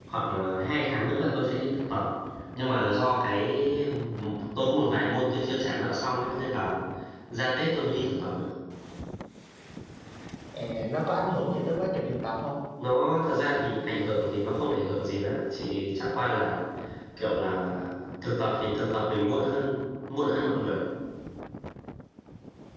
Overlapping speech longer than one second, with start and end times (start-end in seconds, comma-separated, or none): none